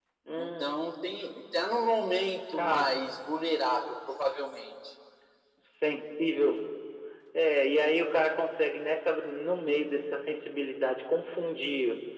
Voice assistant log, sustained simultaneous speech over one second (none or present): none